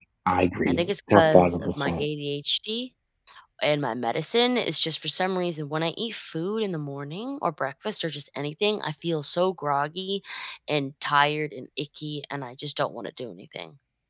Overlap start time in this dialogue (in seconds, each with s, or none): 0.7 s